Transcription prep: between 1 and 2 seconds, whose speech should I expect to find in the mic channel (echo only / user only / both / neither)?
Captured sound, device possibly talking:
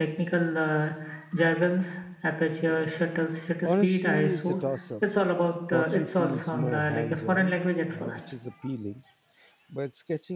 echo only